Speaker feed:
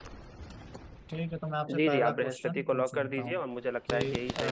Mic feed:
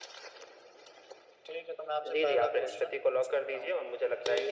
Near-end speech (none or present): none